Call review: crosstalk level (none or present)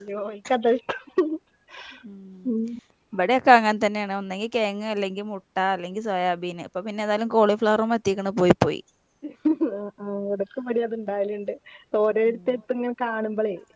none